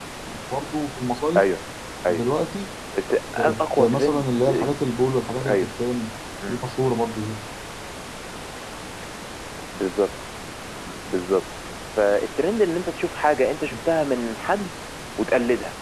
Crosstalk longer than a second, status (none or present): present